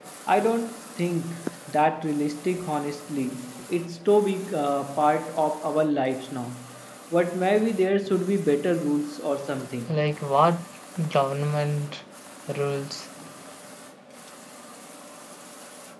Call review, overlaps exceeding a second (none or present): none